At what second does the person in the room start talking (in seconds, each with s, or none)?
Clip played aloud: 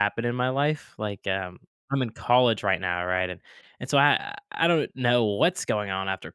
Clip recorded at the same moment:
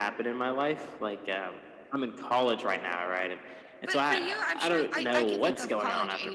3.9 s